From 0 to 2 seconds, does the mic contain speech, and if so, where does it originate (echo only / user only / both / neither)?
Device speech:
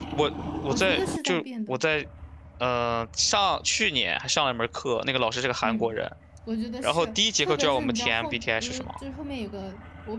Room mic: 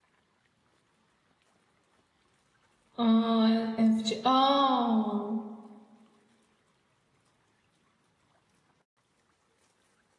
neither